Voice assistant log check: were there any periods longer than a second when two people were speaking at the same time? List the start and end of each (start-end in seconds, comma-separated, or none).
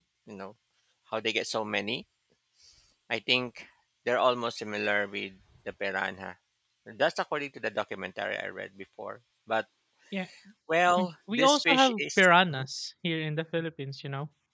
11.0-12.7